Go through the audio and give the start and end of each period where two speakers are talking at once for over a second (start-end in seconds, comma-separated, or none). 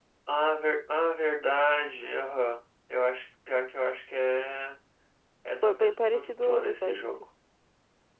5.6-7.1